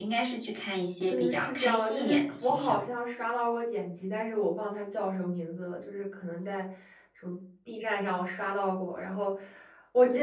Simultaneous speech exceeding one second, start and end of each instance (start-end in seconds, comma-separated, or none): 1.1-2.8